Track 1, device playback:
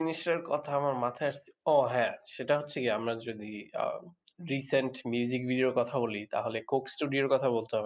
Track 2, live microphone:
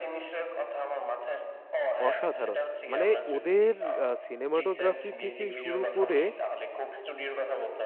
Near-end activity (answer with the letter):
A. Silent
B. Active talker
B